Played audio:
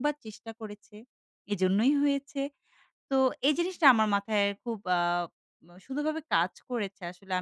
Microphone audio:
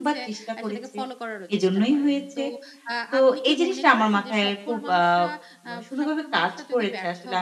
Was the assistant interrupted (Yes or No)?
Yes